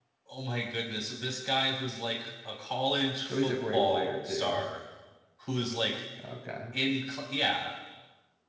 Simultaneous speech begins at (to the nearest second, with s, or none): 3 s